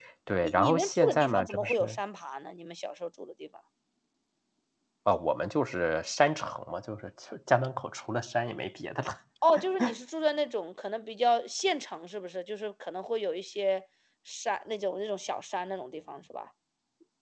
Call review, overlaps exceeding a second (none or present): present